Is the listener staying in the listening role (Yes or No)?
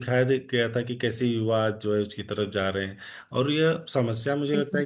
Yes